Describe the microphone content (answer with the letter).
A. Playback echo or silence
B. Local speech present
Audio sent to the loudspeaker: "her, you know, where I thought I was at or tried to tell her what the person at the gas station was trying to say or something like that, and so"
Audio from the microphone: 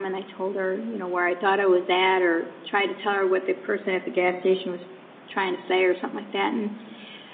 A